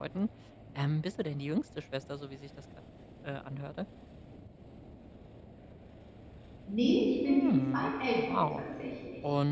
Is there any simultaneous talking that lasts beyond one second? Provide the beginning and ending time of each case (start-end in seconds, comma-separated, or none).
7.3-8.6